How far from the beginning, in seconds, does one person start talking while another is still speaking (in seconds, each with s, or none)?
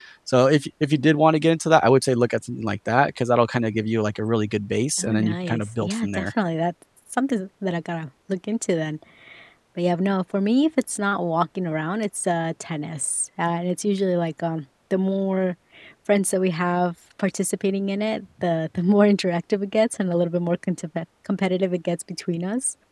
5.0 s